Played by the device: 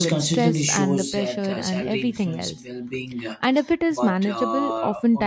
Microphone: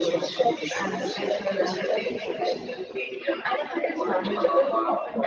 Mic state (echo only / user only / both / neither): echo only